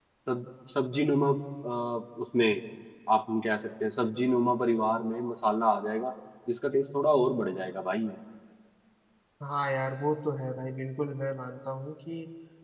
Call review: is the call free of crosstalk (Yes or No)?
Yes